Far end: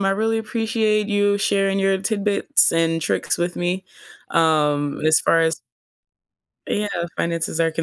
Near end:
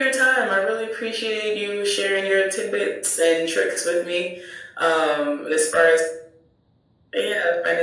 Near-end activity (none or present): none